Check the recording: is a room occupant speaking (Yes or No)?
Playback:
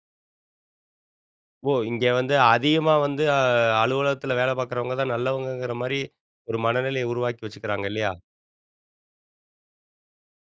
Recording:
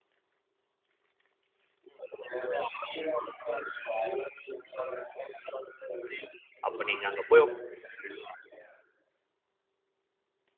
Yes